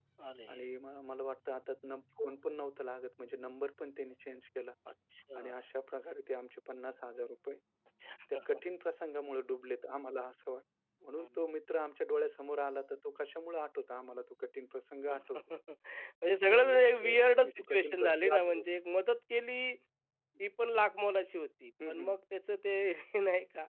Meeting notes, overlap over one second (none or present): present